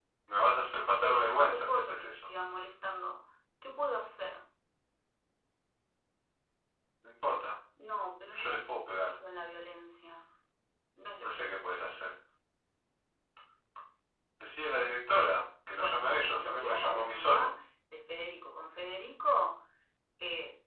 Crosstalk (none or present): present